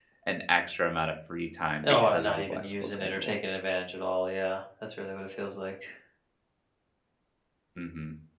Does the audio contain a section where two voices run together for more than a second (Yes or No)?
Yes